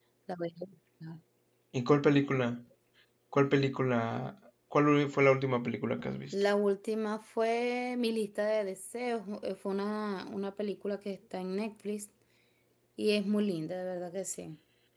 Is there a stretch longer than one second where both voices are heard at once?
No

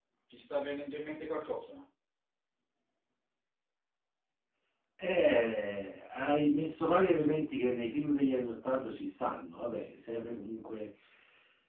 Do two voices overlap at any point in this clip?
No

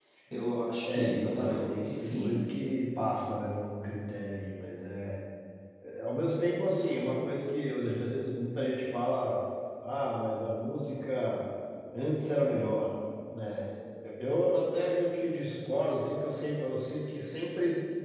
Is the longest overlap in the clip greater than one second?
Yes, from 0.9 s

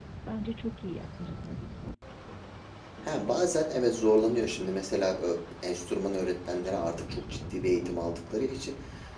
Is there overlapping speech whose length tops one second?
No

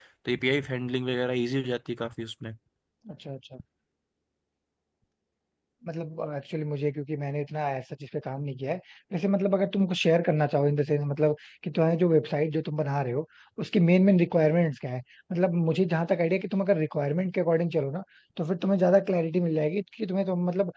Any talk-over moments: No

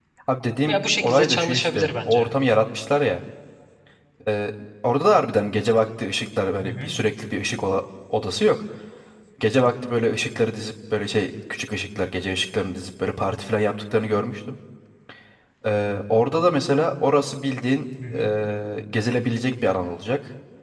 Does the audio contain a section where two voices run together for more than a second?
Yes, from 0.7 s

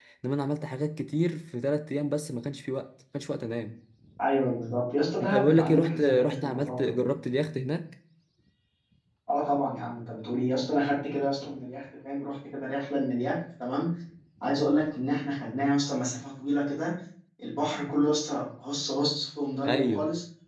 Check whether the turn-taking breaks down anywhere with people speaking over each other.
Yes, from 5.2 s

